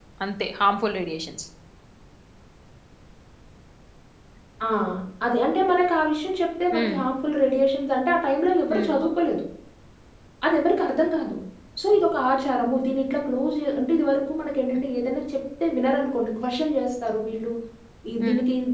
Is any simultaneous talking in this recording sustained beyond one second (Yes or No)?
No